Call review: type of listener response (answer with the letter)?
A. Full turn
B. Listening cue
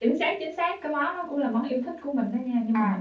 A